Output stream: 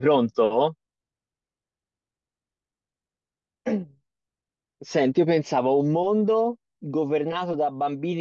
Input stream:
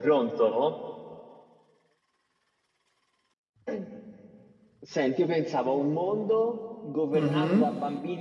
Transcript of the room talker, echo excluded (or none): Mhm.